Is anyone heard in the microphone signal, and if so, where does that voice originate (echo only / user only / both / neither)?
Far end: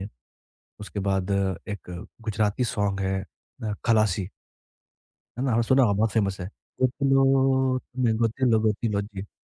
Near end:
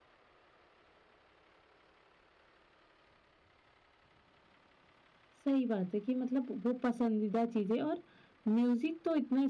user only